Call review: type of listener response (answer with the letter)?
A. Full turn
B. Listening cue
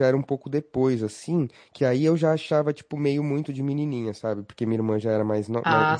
B